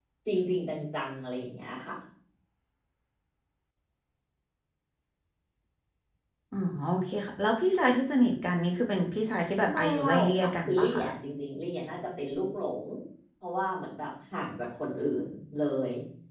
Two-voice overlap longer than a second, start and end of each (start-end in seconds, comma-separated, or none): 9.7-11.0